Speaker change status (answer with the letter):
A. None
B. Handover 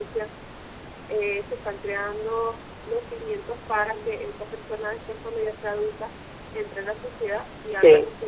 A